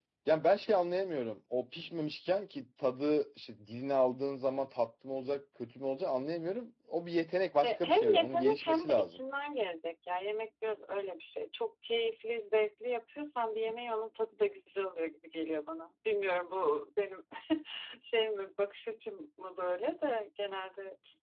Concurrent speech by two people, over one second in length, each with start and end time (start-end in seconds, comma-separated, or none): 7.6-9.2